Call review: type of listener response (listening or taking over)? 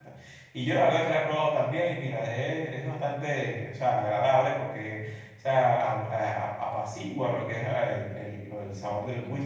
listening